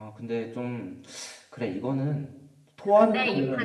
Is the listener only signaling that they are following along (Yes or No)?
No